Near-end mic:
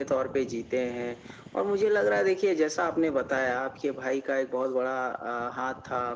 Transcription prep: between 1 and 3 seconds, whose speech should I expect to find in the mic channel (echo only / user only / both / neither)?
echo only